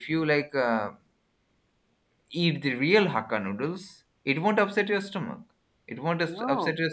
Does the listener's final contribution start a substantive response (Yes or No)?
No